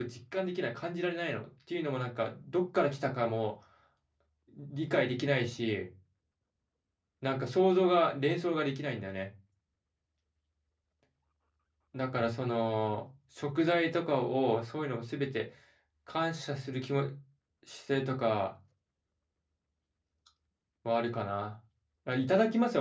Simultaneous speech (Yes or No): No